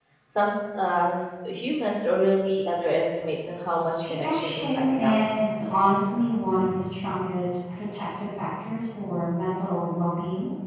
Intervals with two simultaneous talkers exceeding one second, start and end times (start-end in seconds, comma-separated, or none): 4.0-5.5